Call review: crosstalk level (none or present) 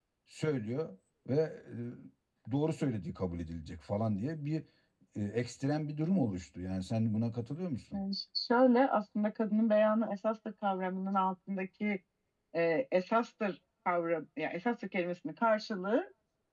none